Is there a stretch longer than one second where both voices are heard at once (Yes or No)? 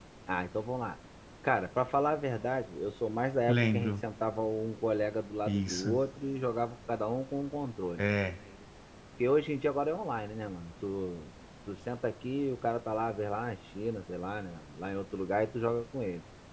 No